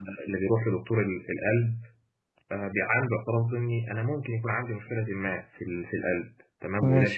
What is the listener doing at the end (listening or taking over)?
listening